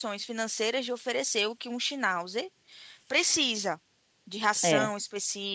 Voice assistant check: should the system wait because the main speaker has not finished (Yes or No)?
Yes